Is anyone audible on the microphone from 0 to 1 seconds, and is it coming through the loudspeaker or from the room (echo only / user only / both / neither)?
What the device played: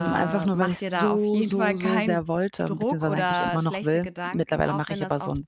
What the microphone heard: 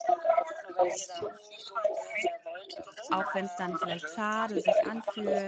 echo only